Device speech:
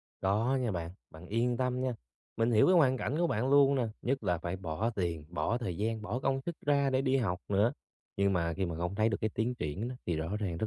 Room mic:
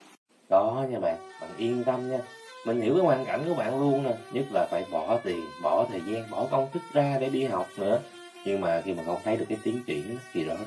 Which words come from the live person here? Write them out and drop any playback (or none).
none